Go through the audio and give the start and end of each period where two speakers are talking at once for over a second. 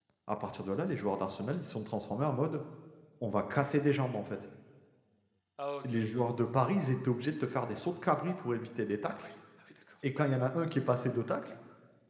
none

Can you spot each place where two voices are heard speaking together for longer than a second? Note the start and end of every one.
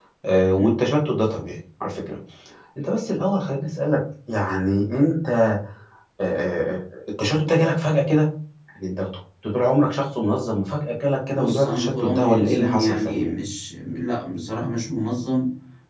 11.3-13.3

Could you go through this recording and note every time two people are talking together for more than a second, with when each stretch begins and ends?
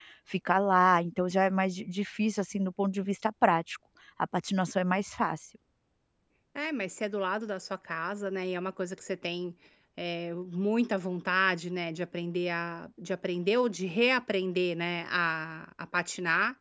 none

